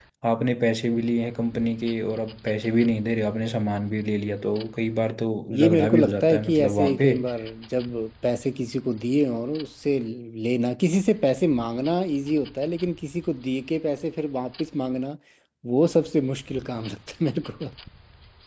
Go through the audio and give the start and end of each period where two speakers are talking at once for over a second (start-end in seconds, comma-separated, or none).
5.5-7.1